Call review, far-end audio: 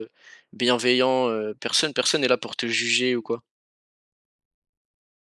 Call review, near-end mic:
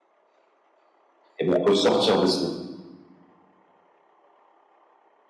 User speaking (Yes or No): Yes